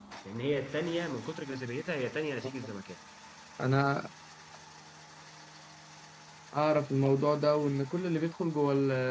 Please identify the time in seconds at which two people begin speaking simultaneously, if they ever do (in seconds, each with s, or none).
none